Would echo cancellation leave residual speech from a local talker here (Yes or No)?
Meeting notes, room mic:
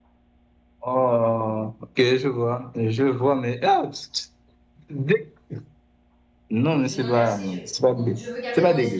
Yes